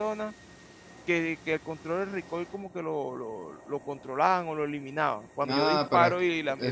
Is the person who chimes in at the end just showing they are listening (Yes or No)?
No